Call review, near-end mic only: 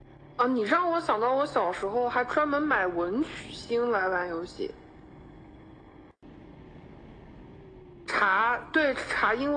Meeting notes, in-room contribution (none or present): none